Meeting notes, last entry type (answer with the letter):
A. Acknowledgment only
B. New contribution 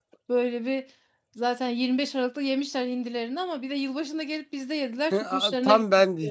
B